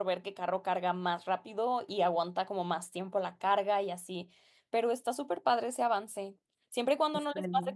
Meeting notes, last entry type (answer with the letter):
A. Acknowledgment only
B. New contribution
A